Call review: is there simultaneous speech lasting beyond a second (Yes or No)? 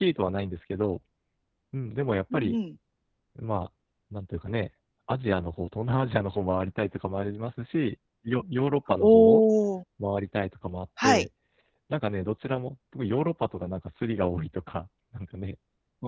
No